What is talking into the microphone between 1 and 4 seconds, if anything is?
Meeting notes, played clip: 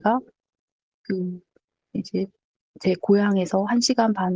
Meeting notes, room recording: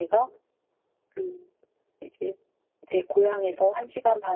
echo only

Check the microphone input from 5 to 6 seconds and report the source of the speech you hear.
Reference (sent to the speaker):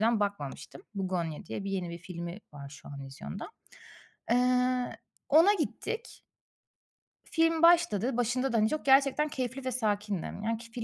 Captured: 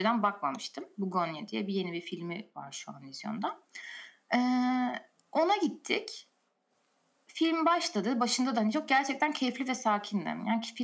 echo only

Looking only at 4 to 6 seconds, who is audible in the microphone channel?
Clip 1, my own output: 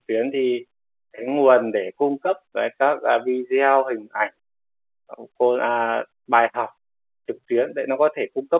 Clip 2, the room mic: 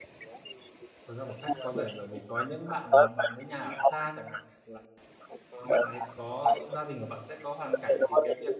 both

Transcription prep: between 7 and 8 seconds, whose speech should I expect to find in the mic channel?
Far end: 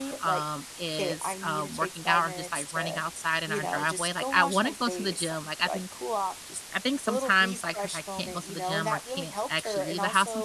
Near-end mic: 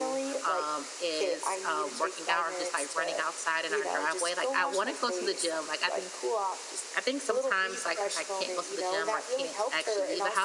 echo only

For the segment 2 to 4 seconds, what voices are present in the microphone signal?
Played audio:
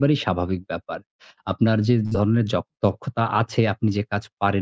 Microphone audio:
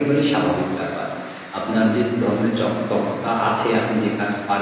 echo only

